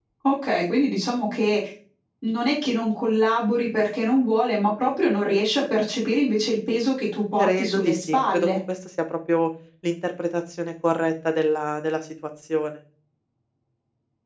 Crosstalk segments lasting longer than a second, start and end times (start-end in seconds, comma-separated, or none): 7.4-8.6